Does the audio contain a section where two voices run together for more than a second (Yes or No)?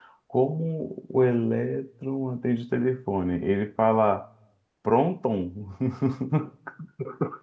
No